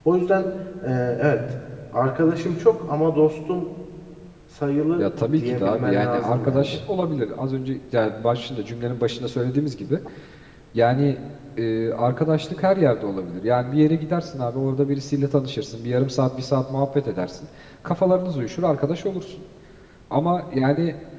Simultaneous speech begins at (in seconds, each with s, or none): 5.0 s